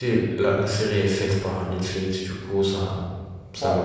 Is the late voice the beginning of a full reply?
Yes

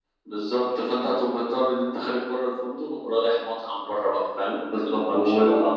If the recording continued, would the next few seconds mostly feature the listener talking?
Yes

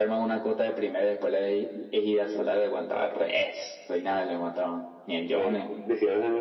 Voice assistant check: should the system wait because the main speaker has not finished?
No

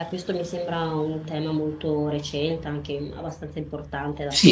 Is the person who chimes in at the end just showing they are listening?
No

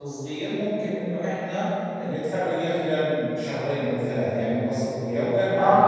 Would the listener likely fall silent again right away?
No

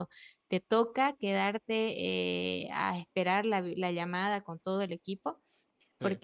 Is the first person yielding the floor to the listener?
No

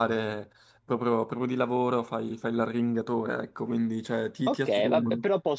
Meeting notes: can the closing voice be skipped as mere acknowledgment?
No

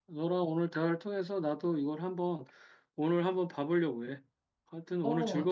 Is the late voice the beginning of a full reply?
Yes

